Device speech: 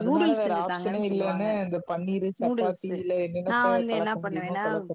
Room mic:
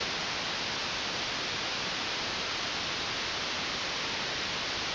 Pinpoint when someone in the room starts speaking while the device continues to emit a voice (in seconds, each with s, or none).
none